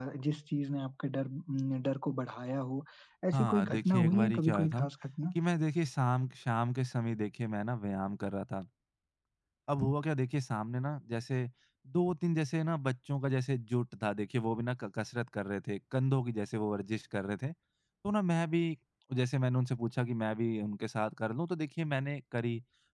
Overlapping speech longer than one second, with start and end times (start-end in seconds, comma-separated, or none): 3.3-4.9